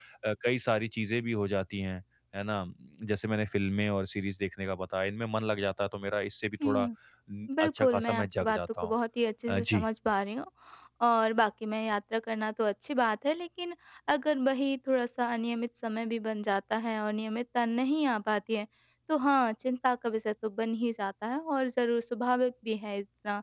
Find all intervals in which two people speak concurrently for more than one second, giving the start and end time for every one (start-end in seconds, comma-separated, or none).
7.6-8.9